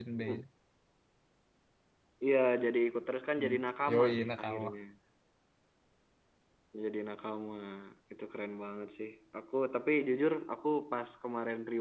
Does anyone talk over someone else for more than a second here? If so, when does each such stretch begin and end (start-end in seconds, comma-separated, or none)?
3.4-4.7